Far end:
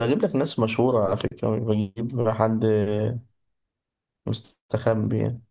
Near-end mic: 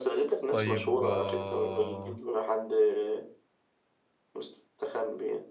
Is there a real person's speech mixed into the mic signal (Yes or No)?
Yes